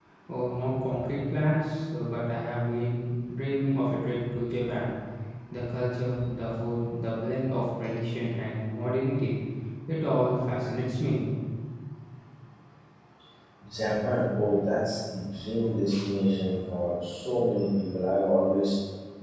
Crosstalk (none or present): none